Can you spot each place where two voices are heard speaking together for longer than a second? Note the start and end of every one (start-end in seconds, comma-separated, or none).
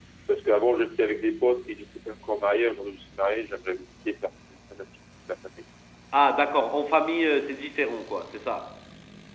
none